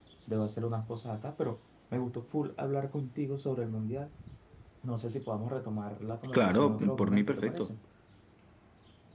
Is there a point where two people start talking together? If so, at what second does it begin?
6.3 s

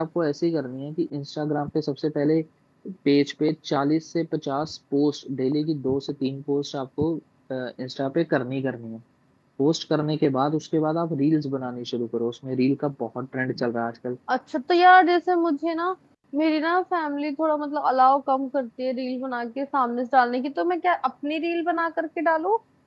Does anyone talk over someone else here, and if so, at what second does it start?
none

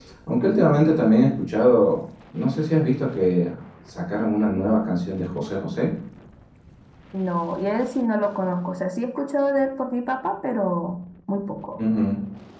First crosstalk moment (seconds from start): none

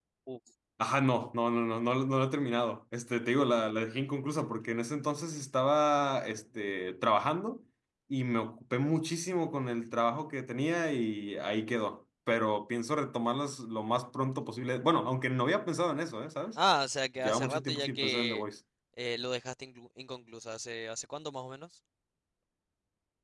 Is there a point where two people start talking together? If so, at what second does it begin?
17.2 s

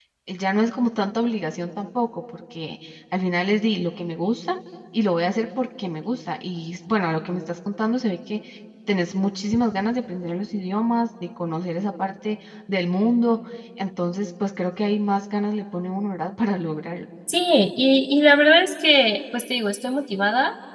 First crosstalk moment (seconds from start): none

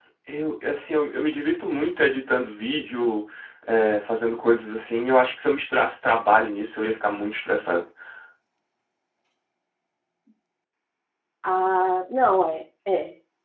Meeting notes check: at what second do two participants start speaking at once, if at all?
none

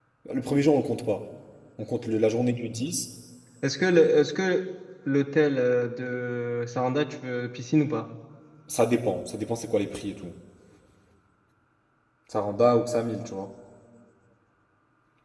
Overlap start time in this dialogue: none

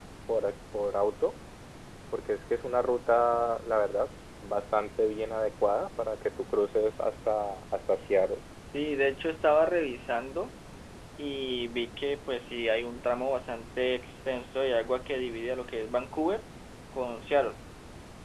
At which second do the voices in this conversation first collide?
none

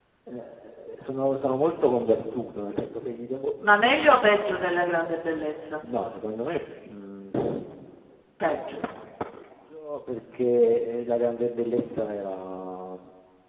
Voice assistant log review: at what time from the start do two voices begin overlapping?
none

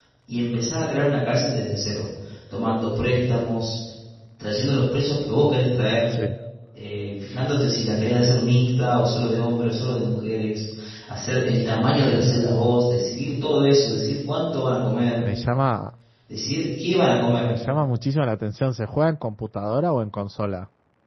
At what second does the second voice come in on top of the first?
none

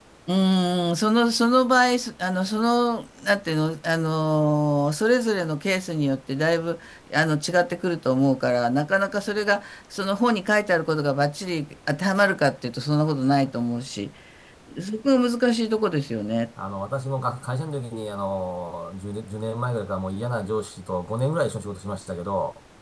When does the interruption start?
none

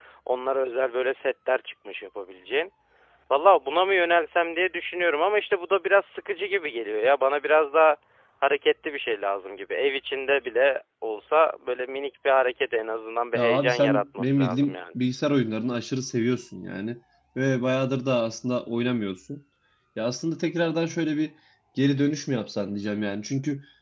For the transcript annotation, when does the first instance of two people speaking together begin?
13.4 s

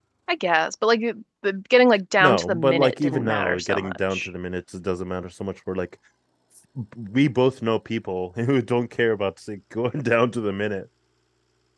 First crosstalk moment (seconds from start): 2.2 s

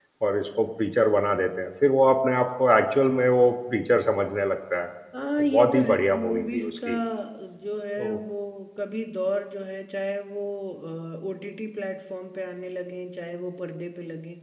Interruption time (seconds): 5.5 s

